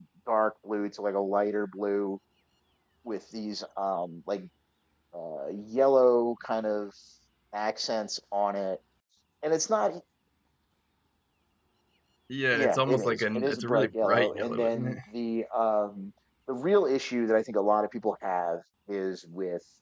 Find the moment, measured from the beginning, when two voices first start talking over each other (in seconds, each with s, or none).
12.5 s